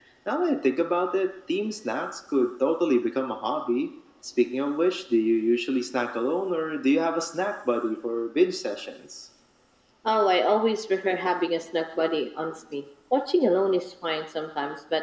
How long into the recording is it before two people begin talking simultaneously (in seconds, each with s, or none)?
none